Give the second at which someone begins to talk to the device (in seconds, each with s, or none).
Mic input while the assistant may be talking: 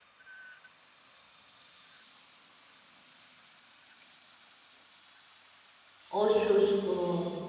6.1 s